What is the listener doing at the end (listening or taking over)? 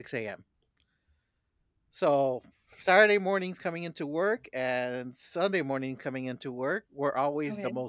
listening